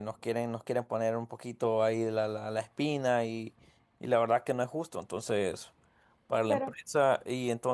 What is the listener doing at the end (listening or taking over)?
listening